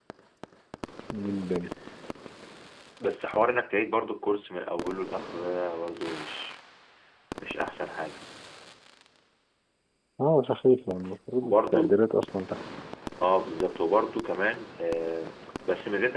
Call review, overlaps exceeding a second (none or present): none